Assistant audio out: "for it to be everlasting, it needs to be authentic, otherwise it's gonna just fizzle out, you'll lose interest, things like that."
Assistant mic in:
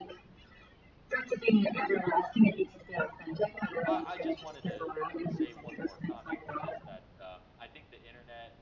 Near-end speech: present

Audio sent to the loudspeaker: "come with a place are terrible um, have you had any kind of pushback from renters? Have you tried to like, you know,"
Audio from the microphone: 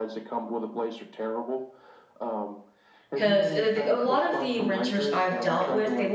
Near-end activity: present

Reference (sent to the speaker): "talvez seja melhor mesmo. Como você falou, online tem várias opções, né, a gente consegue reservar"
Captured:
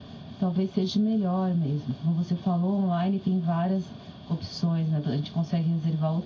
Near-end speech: none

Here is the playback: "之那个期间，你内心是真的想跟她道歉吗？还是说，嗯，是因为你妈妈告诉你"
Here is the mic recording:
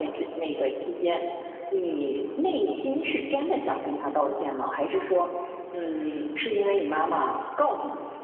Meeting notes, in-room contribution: none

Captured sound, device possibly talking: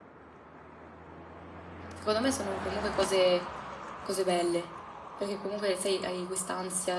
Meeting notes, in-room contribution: present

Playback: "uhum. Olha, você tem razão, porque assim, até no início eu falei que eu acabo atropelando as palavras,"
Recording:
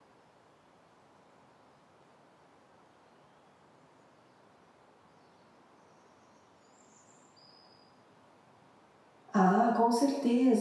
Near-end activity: present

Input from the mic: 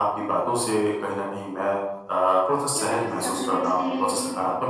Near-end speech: present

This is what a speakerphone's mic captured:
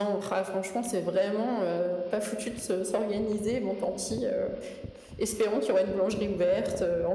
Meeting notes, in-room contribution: none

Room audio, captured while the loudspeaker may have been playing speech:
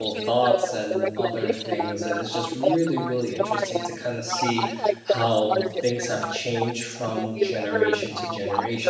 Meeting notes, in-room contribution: present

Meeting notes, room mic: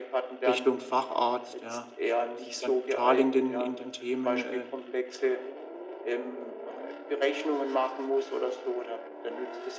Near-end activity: present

